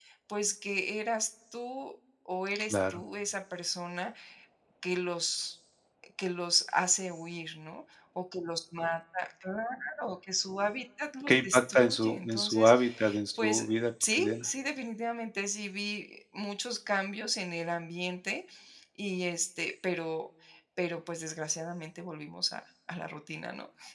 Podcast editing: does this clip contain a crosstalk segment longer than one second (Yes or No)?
Yes